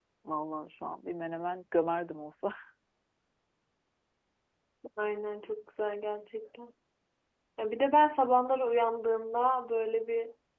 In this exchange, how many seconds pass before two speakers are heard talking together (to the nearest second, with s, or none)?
none